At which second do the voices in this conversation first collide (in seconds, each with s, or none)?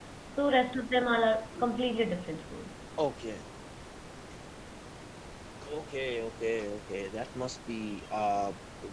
none